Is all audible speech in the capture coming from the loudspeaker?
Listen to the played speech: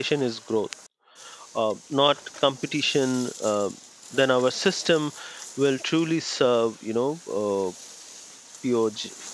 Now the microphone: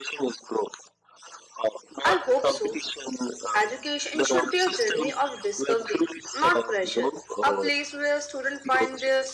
No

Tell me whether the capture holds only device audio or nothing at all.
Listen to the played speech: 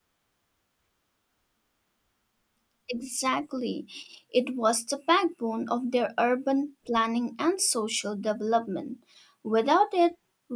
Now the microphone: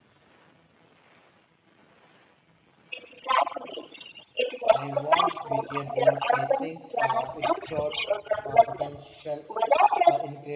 No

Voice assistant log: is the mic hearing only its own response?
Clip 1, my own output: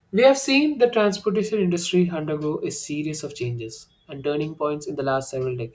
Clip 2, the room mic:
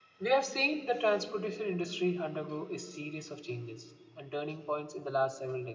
Yes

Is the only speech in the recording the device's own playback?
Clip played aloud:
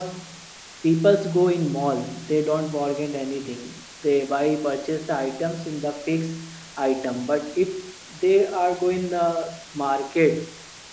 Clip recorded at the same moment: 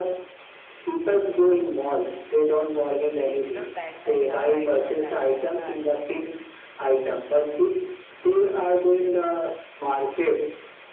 No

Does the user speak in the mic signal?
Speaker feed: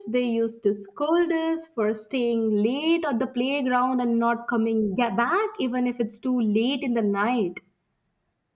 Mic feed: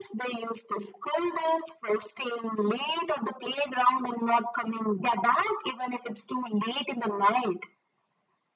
No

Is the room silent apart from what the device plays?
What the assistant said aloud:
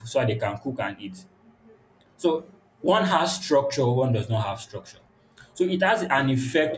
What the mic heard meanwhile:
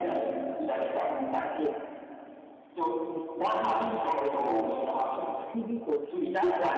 No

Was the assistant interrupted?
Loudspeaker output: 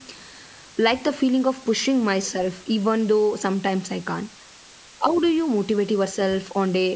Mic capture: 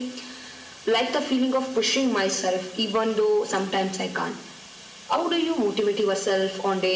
No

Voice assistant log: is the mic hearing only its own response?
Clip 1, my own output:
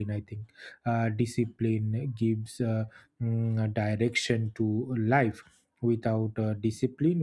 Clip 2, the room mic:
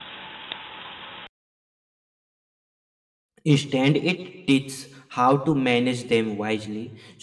No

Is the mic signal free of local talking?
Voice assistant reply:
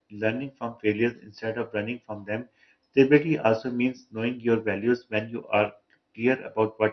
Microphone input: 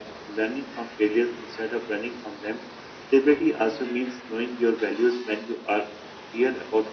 Yes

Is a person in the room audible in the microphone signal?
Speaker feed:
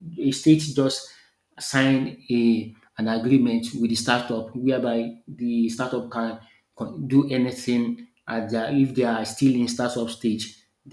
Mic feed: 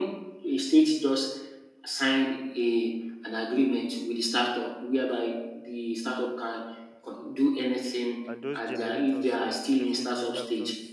Yes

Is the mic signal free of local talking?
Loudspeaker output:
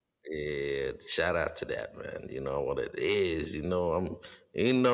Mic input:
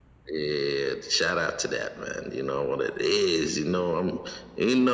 Yes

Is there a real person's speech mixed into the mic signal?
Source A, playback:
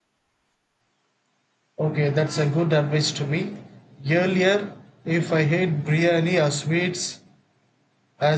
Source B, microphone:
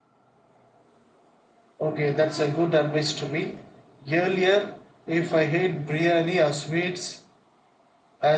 No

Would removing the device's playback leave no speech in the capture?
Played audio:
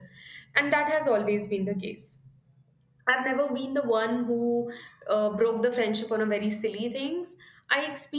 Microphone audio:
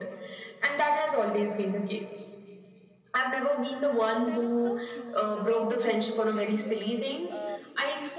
No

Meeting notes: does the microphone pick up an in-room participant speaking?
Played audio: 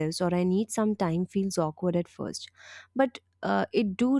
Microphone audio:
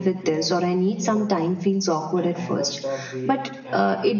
Yes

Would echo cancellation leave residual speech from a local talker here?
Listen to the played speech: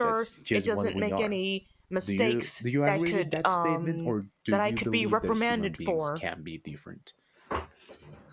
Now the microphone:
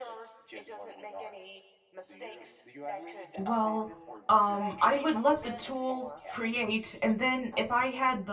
Yes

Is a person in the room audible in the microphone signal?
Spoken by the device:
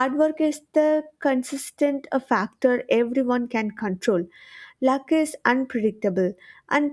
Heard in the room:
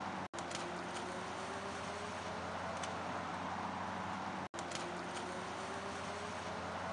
No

